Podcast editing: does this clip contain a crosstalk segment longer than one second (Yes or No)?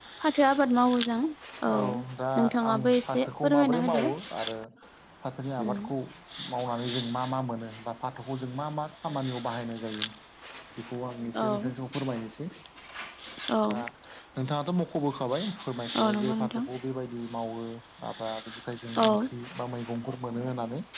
Yes